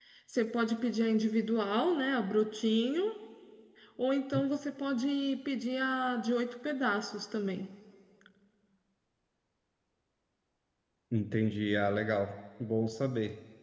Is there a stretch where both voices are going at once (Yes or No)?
No